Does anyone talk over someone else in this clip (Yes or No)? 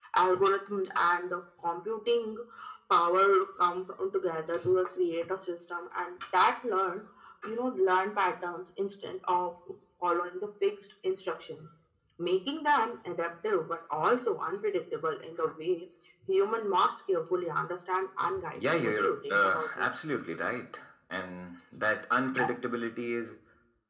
Yes